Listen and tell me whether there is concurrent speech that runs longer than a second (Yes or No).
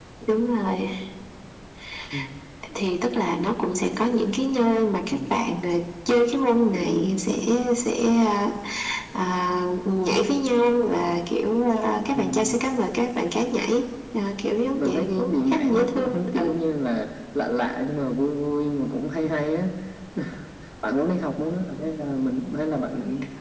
Yes